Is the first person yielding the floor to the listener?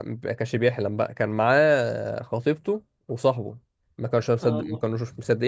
No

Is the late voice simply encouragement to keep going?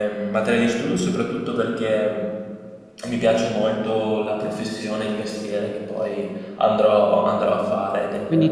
No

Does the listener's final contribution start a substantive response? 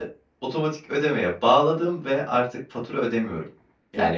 Yes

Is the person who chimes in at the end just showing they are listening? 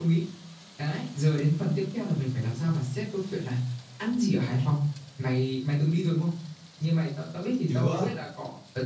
Yes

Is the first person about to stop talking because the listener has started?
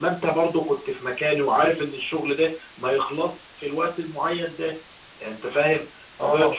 No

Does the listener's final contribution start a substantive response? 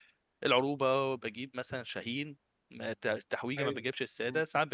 No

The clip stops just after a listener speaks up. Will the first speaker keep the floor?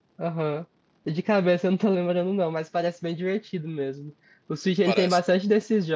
Yes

